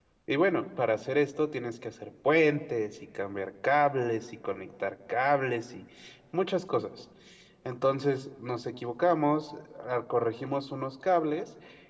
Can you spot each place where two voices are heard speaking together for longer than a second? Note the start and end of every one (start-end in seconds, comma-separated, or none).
none